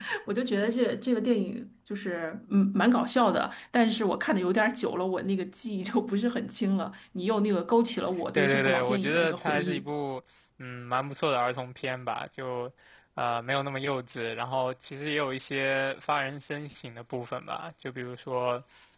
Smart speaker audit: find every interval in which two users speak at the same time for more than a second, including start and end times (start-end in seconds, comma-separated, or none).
8.3-9.8